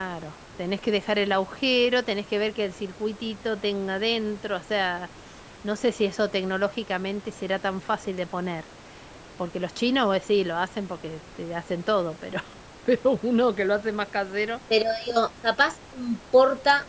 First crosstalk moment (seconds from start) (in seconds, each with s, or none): none